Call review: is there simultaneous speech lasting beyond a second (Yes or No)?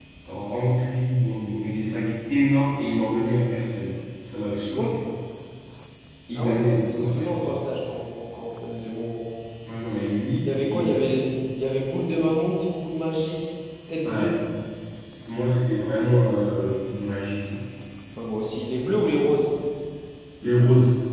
Yes